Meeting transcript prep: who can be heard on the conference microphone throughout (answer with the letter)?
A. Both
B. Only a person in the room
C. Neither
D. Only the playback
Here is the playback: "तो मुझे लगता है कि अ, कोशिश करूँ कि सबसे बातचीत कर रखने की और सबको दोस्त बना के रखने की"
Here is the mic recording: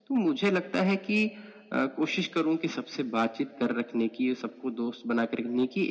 D